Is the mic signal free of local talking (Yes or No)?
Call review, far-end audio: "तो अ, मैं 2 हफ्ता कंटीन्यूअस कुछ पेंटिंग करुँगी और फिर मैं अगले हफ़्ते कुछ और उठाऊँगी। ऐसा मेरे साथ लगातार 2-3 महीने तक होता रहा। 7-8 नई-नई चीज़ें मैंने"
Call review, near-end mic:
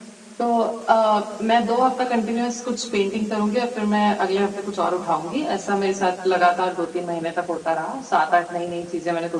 Yes